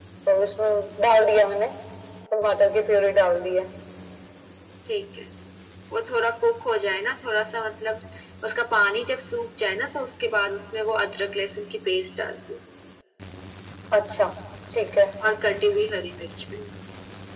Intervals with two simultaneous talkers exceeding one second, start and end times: none

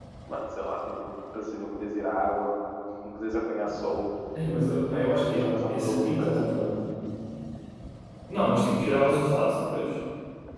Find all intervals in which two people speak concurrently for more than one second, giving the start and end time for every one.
5.3-6.7

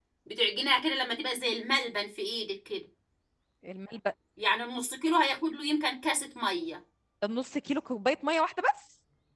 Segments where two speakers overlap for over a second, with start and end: none

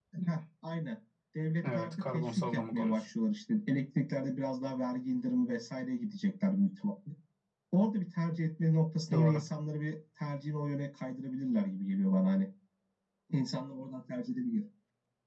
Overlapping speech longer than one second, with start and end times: 1.6-3.0

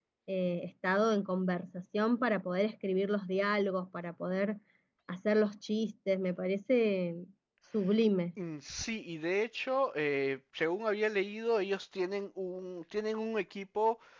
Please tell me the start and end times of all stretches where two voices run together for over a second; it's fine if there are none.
none

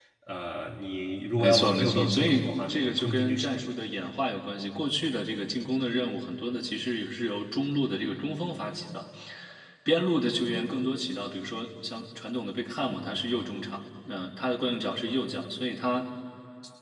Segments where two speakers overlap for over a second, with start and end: 1.4-3.7

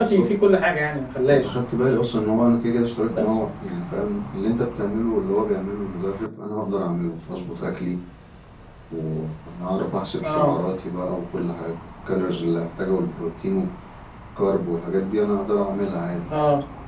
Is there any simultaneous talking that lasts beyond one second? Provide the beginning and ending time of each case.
none

